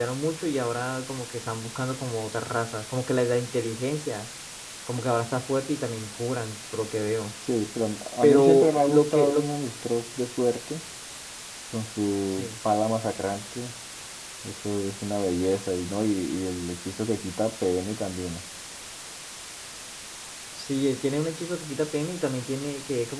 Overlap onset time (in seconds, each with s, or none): 8.2 s